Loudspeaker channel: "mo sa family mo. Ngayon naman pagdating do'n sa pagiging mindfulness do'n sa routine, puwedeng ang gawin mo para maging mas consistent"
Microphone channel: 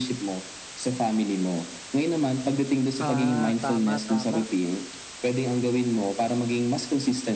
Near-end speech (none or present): present